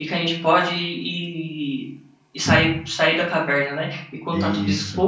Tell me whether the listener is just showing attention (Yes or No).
Yes